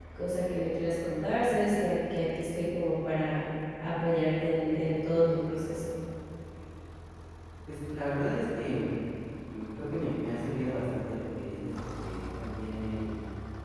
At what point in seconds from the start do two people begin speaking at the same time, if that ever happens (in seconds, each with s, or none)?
none